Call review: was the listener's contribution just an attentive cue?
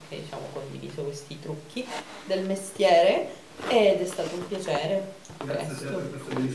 No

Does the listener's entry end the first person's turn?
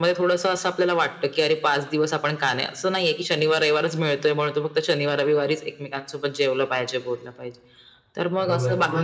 Yes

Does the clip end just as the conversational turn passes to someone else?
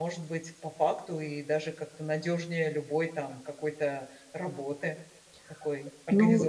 Yes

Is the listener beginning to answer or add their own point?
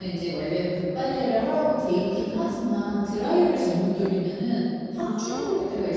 No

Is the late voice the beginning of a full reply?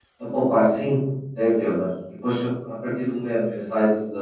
No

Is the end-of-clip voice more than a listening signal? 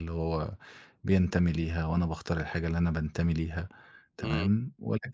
No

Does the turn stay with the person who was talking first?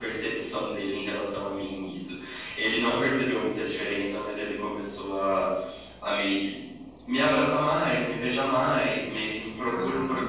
No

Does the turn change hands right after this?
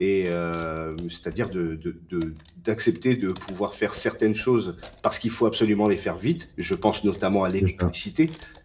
No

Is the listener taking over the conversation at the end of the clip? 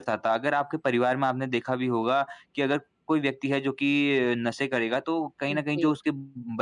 No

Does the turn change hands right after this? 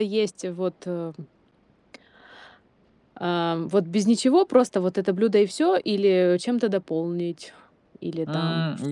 Yes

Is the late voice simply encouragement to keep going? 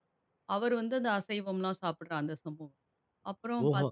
Yes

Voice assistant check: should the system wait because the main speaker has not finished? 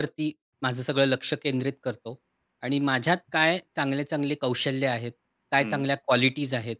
Yes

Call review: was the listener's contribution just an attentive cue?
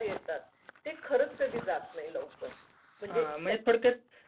No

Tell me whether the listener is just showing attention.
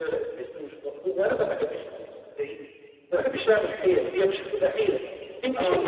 Yes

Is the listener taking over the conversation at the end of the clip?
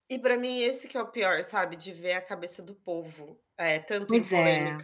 No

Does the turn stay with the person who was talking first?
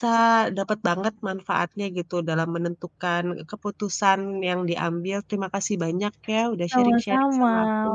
No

